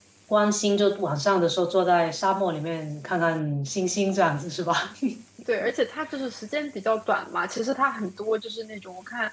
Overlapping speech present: No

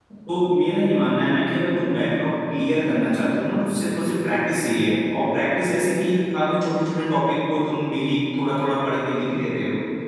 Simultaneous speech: No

